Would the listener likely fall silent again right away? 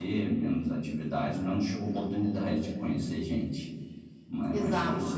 No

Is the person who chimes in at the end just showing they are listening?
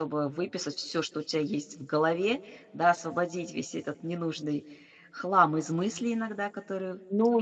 No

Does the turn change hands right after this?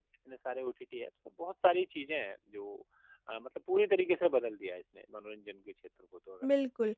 Yes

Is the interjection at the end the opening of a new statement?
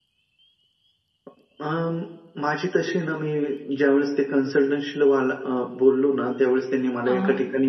No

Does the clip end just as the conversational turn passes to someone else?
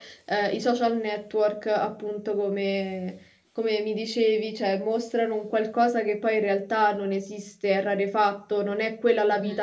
No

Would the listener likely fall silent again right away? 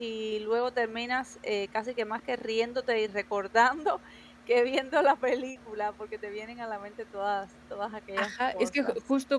No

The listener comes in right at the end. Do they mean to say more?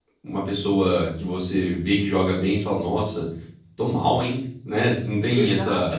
Yes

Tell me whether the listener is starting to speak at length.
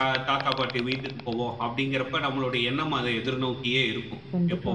No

